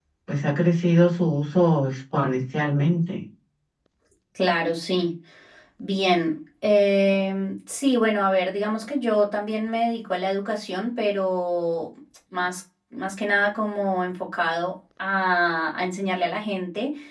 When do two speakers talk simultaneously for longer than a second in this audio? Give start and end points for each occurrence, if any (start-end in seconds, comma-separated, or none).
none